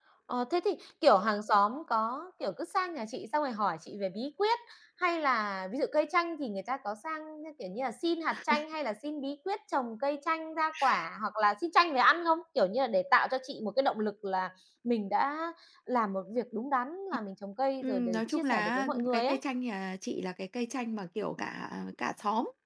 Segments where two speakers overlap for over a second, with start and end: 17.8-19.4

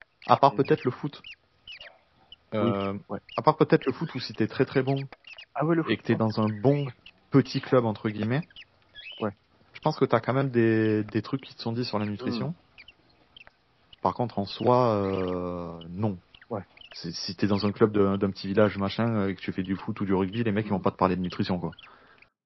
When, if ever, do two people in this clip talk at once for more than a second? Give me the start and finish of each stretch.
none

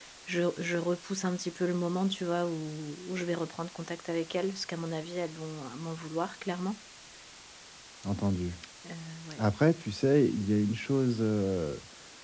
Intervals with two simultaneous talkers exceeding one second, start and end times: none

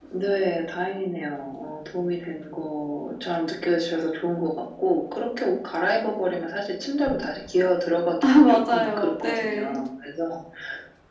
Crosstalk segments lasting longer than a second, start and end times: 8.2-9.7

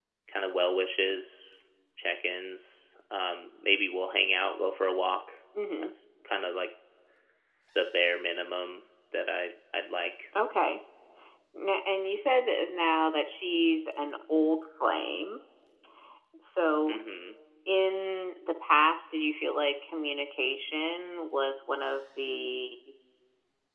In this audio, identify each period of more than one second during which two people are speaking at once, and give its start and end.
none

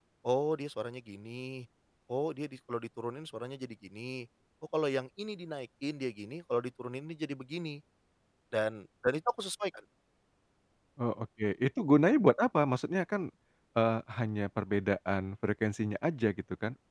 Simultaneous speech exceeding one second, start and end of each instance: none

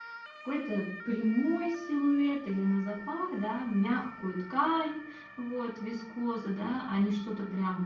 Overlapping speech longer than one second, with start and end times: none

